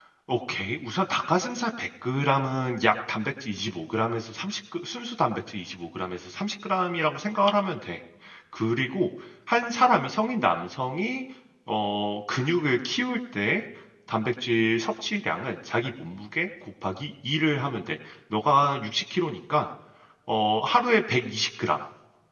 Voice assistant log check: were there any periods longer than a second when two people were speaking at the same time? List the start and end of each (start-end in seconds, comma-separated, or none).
none